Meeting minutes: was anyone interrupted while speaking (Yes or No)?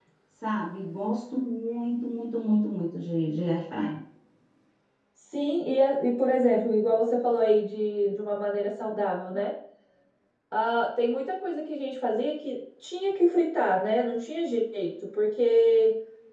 No